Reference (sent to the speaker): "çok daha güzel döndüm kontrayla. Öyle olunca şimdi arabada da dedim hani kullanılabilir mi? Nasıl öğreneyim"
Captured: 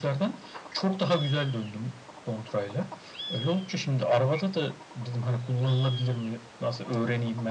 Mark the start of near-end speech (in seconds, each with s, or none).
none